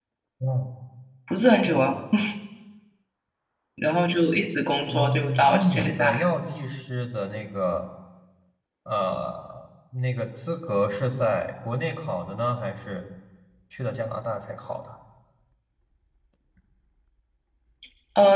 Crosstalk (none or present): present